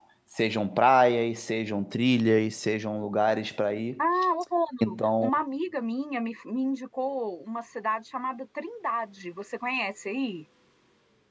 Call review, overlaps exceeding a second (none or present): none